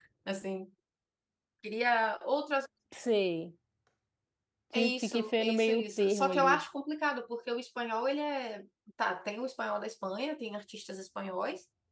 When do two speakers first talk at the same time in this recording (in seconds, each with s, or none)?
4.7 s